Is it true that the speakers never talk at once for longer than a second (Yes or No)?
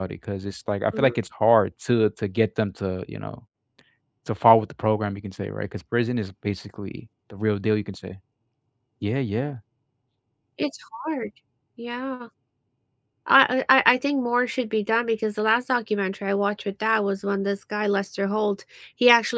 Yes